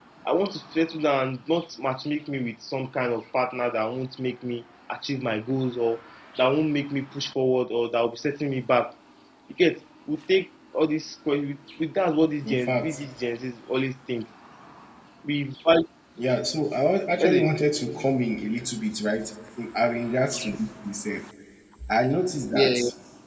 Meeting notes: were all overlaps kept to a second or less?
Yes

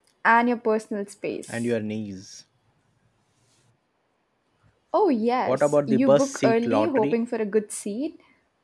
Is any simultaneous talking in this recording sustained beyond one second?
Yes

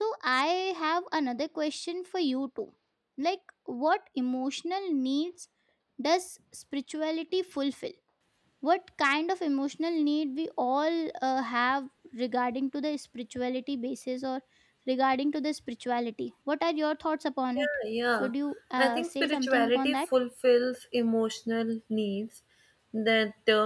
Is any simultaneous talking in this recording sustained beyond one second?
Yes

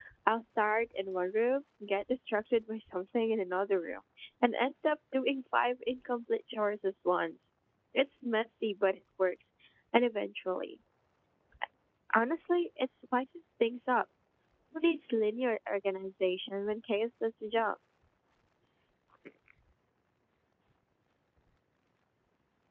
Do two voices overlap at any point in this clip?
No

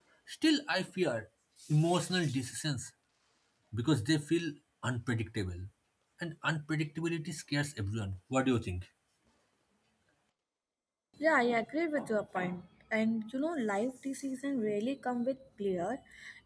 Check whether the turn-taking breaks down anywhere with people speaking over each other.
No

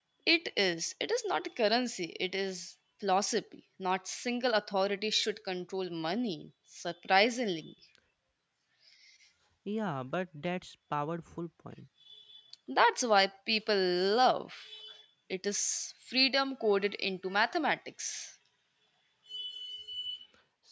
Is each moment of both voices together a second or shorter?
Yes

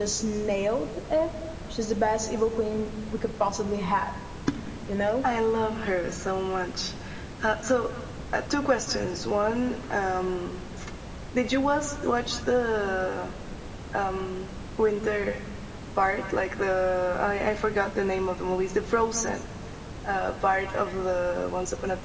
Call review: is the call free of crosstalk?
Yes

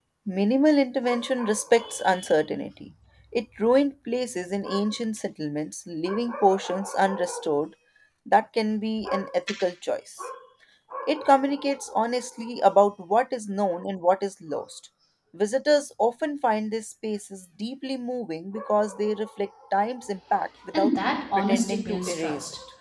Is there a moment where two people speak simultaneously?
Yes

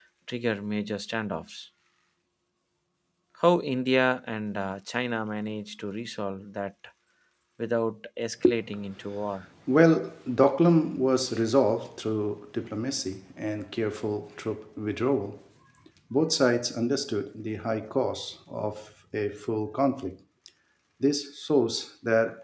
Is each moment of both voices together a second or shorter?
Yes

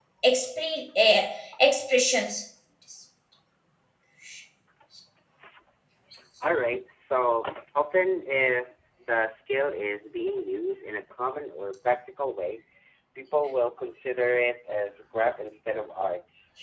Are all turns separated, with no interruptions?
Yes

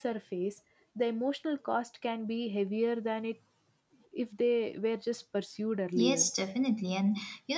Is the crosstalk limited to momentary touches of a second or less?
Yes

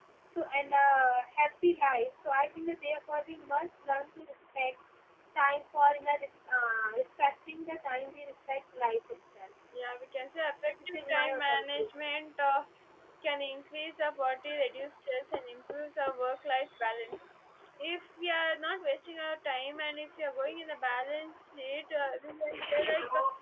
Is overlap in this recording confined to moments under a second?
No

